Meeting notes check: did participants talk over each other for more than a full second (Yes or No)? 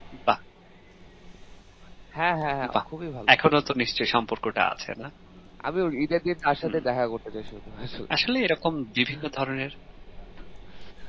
No